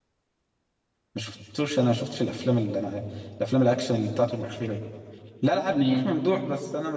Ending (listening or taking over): listening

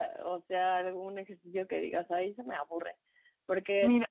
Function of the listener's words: listening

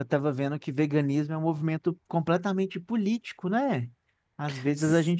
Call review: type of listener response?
listening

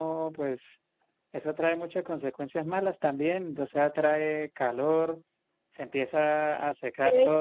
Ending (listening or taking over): listening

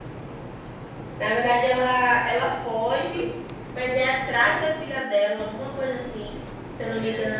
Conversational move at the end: listening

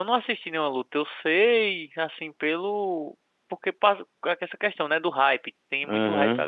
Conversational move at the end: taking over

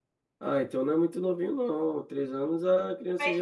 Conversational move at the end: taking over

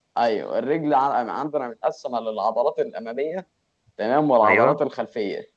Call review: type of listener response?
listening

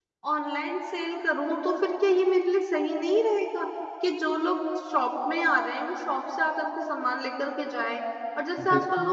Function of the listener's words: listening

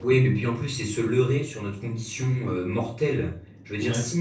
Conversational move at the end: listening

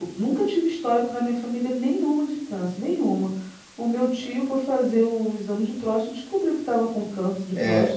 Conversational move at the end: taking over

